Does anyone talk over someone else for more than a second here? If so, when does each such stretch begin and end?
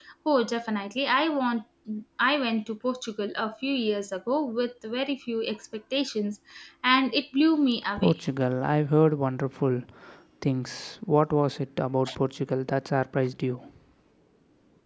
none

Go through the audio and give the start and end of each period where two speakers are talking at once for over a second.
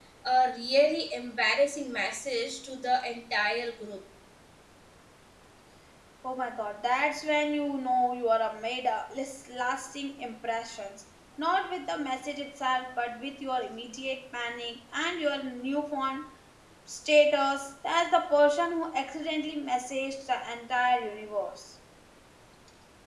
none

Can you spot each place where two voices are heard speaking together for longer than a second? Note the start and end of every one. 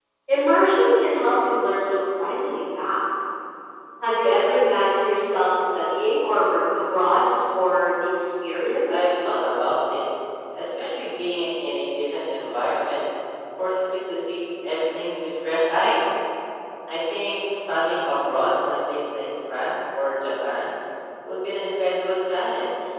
none

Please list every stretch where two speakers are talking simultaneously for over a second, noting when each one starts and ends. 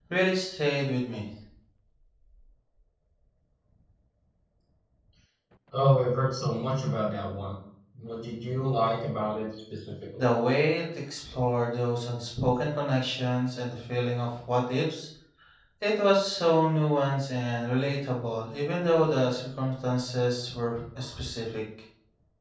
none

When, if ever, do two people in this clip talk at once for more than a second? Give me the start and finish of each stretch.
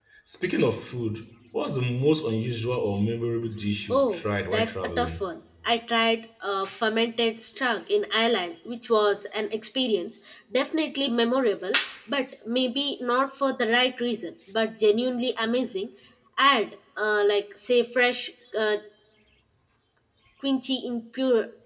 3.9-5.2

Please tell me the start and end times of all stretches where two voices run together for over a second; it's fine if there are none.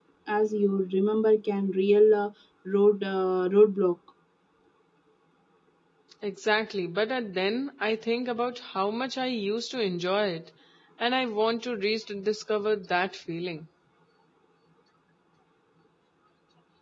none

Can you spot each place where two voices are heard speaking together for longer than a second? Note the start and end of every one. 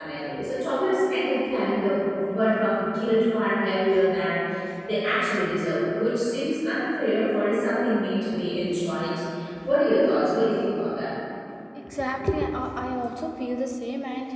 none

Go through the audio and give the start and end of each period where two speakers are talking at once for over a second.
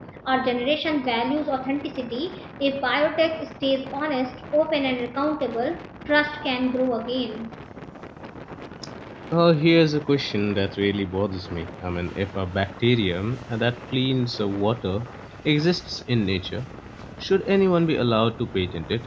none

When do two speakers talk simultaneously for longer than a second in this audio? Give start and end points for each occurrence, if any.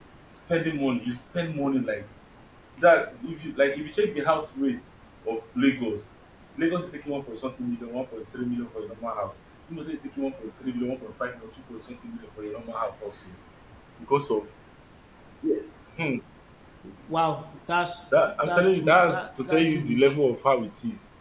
18.4-20.1

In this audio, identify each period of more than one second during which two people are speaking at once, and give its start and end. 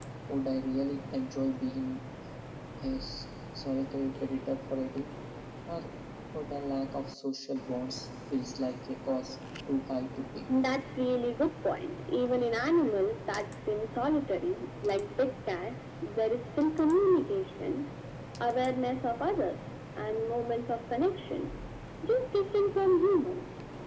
none

